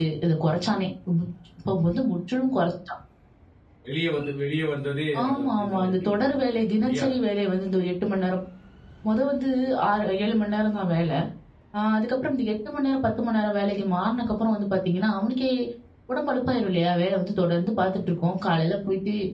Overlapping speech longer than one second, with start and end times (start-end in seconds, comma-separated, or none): 5.2-7.1